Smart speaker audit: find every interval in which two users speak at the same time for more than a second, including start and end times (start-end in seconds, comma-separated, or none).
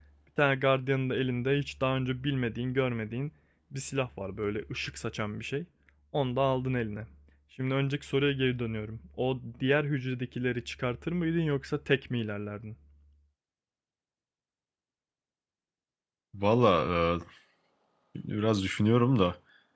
none